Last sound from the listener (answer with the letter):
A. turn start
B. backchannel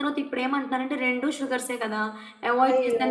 A